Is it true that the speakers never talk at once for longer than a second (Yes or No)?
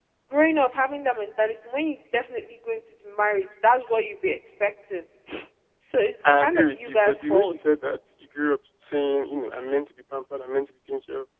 No